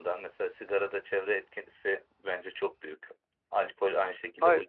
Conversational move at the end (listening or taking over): listening